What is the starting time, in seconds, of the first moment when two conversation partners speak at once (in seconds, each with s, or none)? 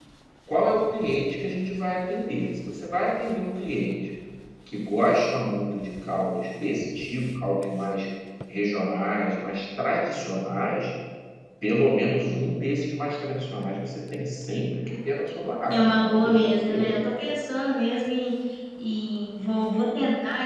15.7 s